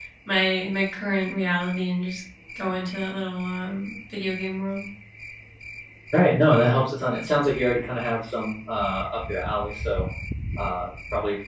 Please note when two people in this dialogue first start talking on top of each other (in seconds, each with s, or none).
none